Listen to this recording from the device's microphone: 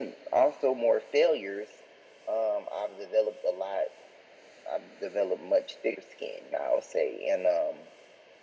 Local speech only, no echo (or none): none